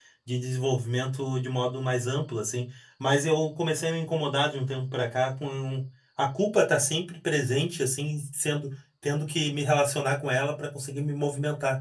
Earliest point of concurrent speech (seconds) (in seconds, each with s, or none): none